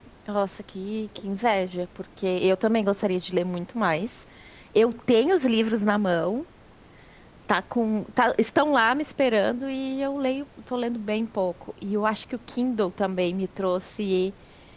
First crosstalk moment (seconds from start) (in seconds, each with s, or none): none